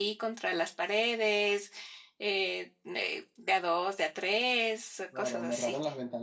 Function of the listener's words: taking over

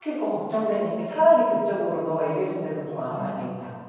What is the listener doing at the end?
taking over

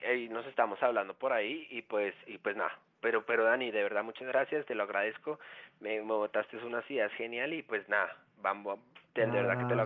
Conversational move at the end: taking over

